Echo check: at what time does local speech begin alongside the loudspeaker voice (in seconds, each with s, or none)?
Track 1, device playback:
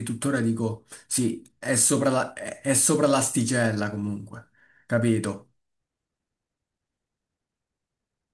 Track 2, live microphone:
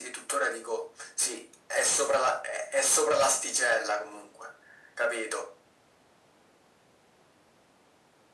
none